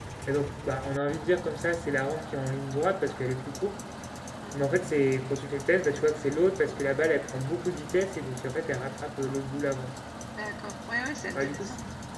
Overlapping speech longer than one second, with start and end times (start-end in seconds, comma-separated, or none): none